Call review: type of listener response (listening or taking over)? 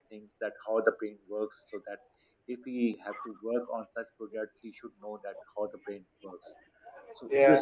listening